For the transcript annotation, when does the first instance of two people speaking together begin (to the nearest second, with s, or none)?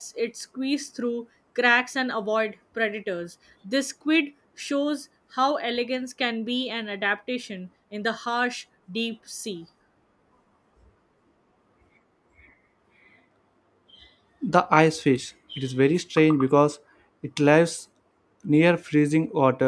none